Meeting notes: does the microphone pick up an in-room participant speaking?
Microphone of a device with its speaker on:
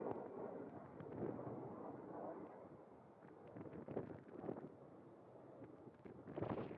No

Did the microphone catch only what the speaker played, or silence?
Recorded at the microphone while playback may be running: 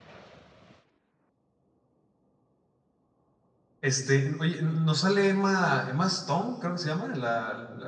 No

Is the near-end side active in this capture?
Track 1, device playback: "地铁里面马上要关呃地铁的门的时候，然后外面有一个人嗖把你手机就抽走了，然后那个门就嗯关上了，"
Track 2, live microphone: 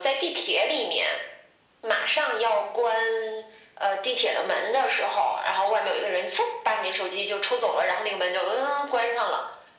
No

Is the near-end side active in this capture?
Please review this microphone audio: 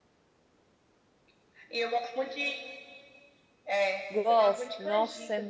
Yes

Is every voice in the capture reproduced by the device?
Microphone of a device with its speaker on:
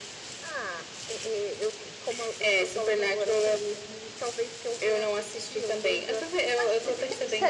No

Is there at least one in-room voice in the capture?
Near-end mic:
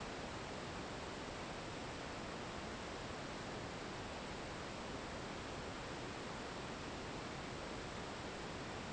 No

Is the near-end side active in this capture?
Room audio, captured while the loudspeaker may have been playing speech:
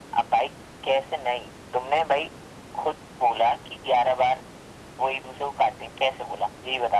No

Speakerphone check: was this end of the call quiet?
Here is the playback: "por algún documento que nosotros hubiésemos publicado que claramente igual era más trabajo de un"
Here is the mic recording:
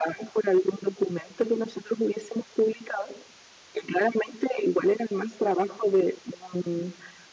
Yes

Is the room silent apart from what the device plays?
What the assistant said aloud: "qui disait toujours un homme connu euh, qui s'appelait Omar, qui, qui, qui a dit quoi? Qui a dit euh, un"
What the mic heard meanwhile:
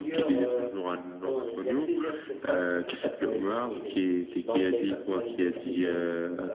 No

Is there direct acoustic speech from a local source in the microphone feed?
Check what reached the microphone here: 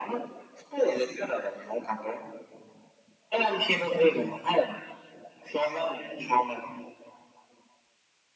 No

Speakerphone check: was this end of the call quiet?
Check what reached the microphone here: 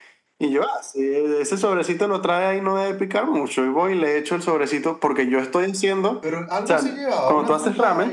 No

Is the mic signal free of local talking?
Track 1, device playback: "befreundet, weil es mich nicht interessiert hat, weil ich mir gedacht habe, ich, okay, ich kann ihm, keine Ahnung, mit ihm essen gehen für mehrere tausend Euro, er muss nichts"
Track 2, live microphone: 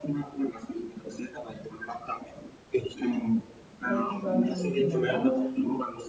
No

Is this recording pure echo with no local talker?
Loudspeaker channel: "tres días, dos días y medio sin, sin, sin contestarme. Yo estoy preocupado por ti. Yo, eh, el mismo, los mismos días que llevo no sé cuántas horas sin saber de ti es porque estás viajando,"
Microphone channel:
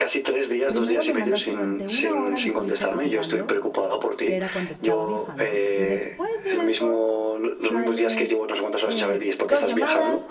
No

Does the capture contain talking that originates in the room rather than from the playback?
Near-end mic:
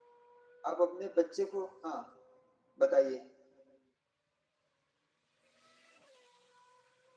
Yes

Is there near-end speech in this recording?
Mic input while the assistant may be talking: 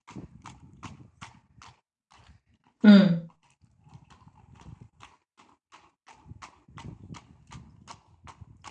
Yes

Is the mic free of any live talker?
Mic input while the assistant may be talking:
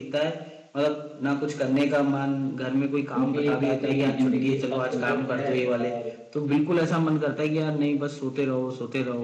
No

